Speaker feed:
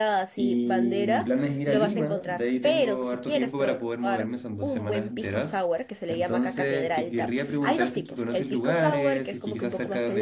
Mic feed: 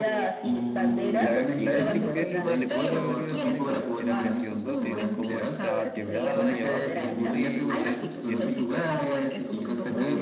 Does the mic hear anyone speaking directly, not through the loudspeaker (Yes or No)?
Yes